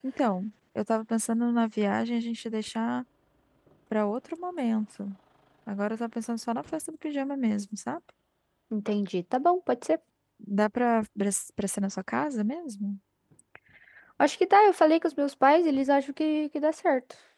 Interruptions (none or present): none